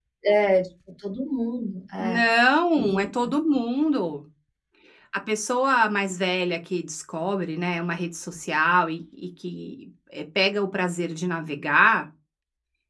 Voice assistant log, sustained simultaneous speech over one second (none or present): none